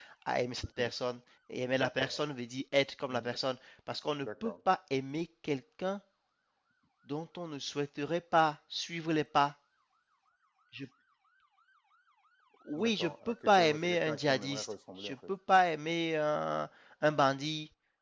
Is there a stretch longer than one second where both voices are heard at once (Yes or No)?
Yes